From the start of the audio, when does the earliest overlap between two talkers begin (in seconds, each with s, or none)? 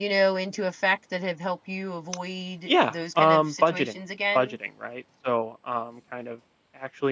2.7 s